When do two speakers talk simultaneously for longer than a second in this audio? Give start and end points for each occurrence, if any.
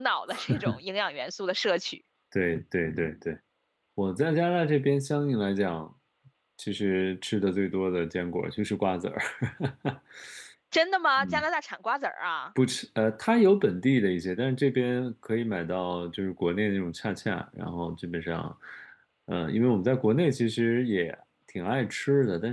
none

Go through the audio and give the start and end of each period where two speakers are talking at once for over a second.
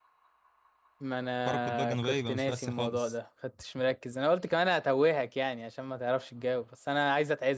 1.4-3.1

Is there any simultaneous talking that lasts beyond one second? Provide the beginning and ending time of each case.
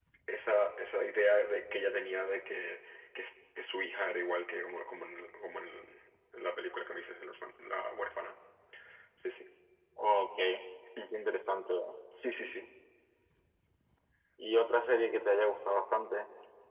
none

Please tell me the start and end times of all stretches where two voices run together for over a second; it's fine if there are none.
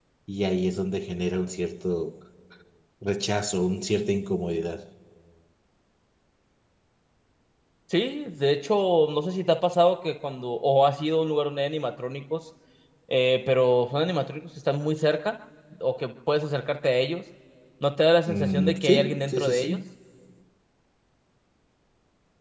18.3-19.8

